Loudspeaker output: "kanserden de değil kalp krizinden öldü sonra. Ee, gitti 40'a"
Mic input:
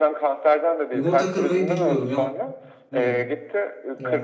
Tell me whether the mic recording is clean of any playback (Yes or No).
No